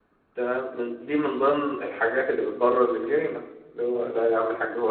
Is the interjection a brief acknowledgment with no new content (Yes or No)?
Yes